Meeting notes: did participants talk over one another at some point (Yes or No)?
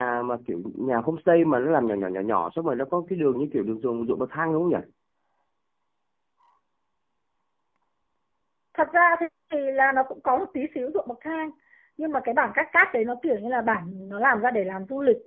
No